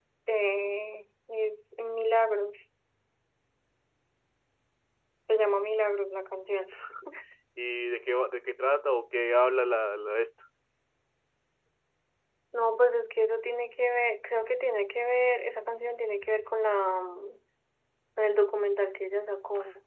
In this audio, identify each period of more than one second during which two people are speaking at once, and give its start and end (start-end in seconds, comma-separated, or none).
none